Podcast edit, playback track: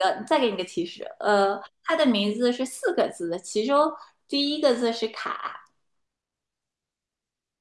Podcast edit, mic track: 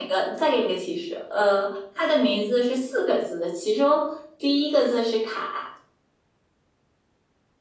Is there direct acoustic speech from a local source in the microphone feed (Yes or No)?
No